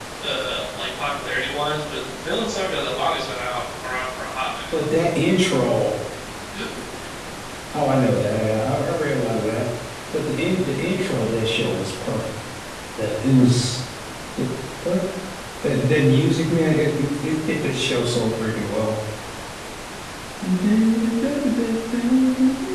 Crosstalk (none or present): none